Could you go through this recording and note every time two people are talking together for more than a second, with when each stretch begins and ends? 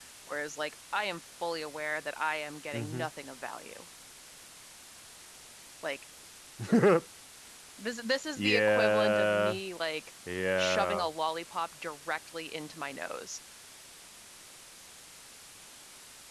8.4-9.6

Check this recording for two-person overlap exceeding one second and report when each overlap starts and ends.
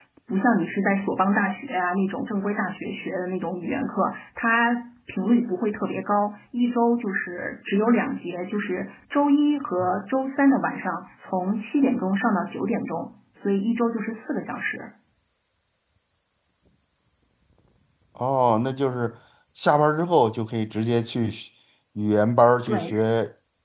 none

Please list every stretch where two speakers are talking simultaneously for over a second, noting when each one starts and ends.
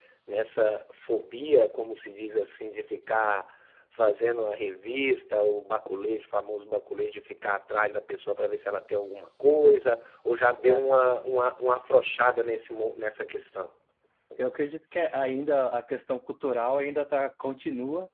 none

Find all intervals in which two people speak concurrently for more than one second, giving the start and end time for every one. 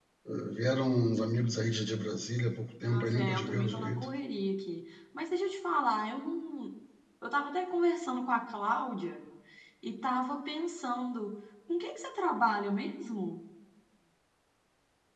2.8-4.0

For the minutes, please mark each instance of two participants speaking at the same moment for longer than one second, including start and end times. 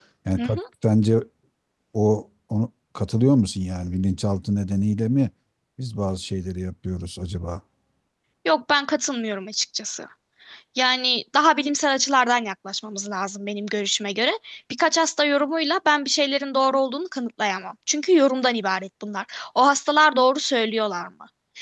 none

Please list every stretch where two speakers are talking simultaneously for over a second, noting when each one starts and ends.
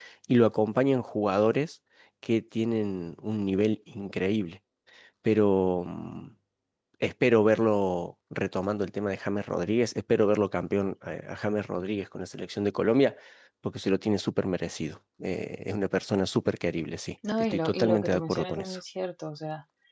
17.5-18.8

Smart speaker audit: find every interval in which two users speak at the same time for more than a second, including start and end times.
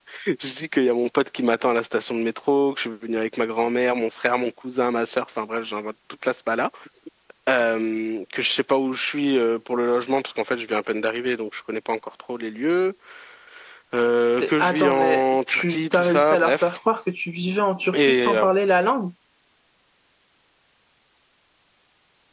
14.4-16.7

